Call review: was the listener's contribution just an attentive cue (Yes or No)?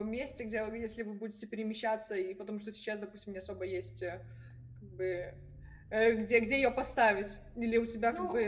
Yes